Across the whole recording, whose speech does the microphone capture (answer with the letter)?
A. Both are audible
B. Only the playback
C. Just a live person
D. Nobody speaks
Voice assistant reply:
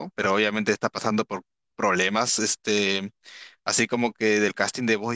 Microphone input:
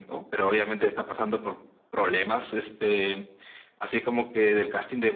B